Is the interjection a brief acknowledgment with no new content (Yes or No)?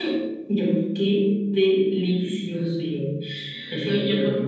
No